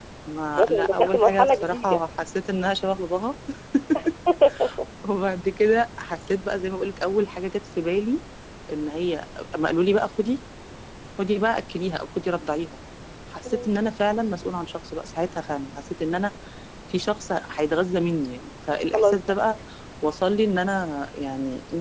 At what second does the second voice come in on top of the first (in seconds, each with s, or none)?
0.6 s